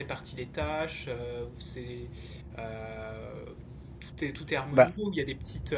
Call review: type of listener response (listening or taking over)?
listening